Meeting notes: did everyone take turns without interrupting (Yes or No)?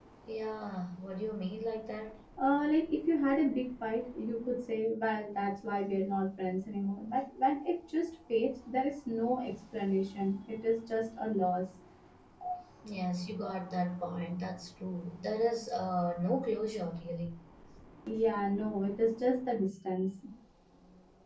Yes